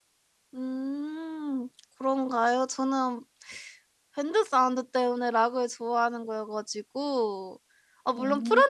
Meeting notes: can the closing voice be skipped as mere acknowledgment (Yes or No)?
Yes